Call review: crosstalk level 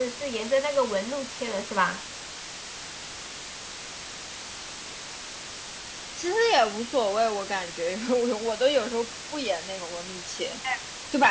none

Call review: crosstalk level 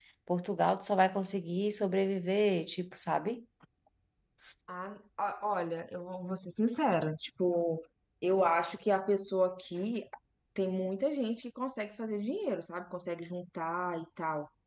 none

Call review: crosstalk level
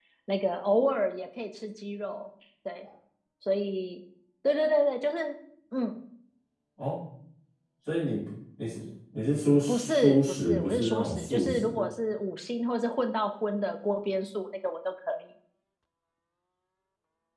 present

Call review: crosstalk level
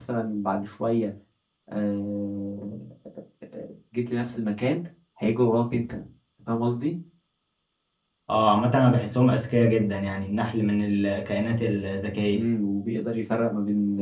none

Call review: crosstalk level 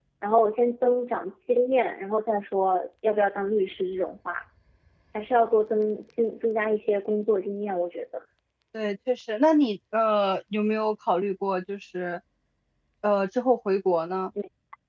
none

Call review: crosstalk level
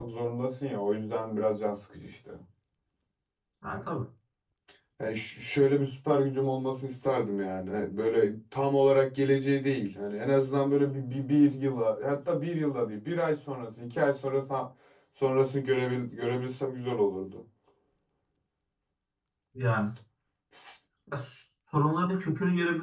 none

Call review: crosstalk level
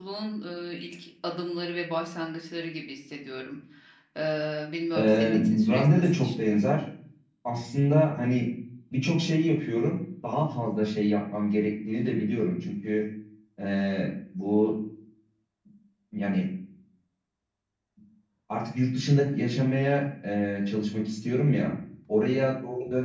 present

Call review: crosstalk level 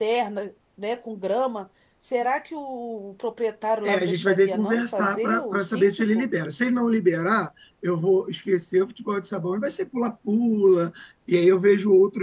present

